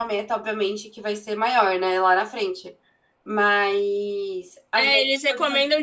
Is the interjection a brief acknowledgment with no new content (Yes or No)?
No